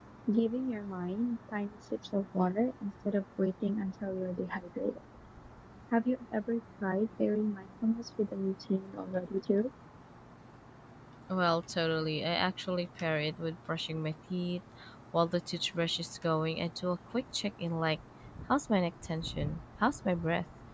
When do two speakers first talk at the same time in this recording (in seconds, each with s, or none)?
none